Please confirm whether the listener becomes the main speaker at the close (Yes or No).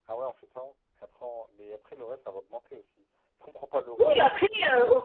Yes